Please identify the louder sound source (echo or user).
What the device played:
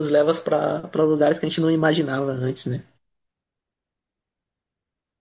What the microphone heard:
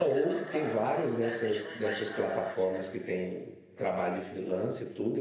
user